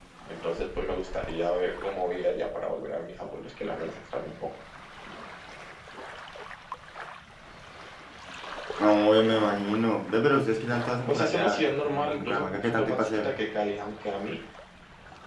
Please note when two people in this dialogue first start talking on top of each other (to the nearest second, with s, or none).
11 s